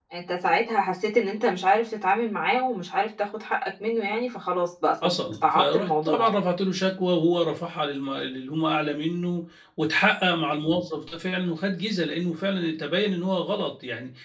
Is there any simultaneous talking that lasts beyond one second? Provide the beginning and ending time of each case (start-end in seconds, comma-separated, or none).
5.0-6.4